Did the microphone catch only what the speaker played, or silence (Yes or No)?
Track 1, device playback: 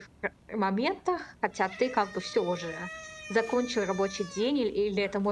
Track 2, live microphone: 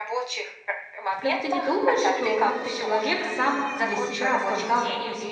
No